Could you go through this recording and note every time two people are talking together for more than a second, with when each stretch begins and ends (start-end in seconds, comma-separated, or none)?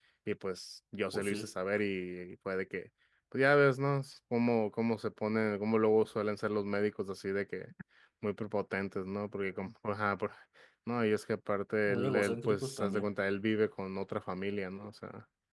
11.9-13.1